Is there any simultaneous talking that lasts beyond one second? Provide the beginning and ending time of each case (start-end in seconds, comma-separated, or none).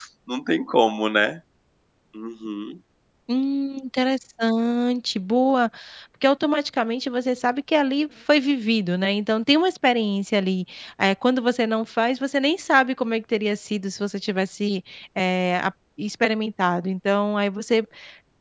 none